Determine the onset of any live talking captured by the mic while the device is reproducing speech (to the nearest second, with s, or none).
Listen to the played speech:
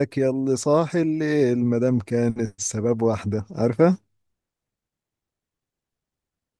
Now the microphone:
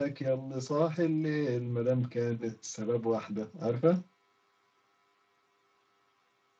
none